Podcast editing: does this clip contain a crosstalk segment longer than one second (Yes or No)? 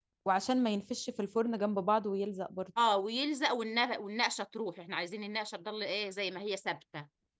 No